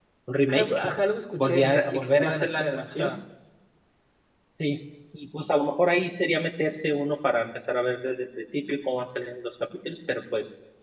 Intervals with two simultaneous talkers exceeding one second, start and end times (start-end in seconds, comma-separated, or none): 1.4-3.2